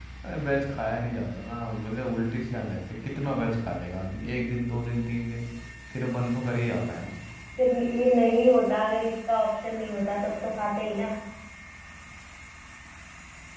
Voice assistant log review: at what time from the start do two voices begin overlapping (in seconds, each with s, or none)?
none